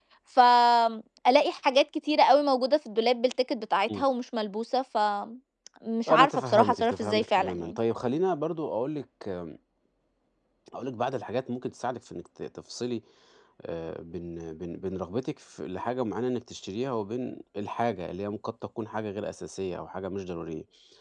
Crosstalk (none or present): present